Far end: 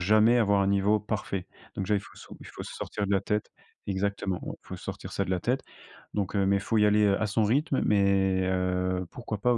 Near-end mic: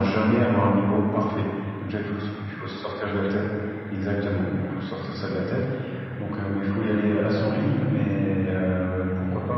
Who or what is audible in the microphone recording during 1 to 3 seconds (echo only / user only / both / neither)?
echo only